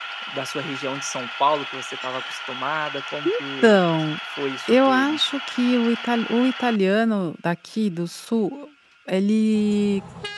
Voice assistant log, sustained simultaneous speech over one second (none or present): none